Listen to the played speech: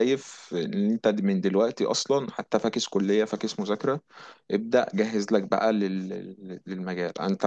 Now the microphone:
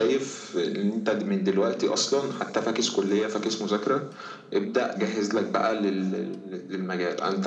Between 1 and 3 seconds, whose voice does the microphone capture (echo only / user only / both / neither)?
echo only